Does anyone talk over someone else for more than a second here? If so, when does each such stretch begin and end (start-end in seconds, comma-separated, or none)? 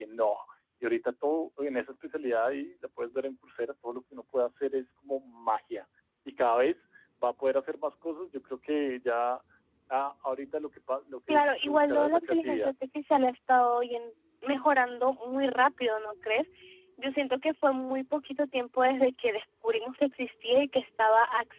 11.3-12.6